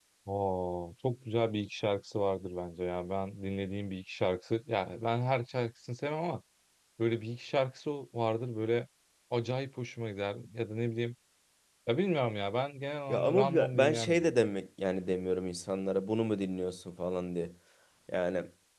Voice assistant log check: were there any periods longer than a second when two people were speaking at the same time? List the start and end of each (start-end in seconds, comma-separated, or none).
13.1-14.3